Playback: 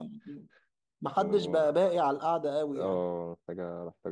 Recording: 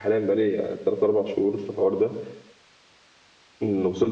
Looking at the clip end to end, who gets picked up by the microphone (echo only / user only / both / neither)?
user only